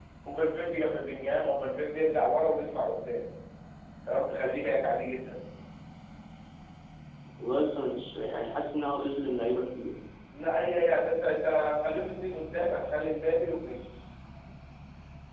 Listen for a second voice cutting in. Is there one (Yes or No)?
No